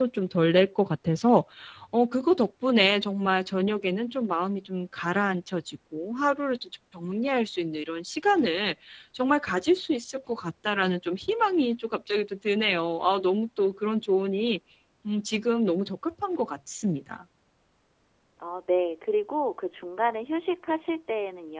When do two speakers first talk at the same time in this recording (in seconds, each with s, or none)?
none